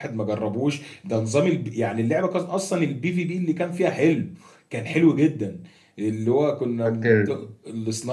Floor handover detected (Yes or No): No